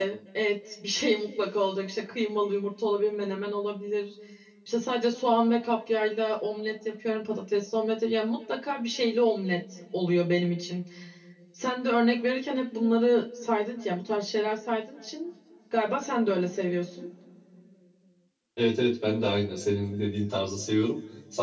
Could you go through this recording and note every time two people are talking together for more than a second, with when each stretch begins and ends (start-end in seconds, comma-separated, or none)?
none